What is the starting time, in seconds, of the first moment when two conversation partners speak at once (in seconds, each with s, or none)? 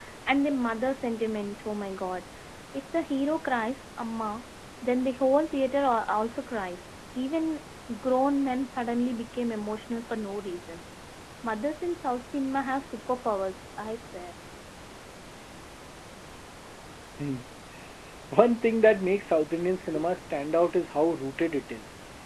none